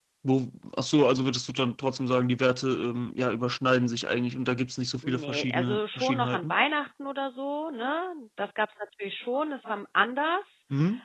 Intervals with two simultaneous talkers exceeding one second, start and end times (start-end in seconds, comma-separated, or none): 5.0-6.5